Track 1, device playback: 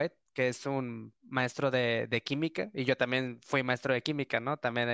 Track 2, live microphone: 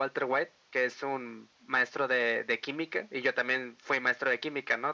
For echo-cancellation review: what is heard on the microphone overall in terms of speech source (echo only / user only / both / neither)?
echo only